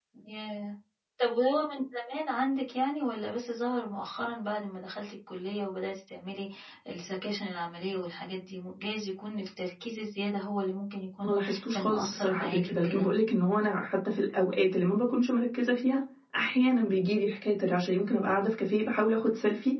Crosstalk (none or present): present